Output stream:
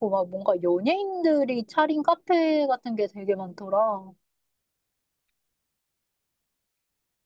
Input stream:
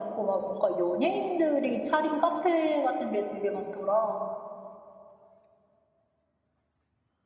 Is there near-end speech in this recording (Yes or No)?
No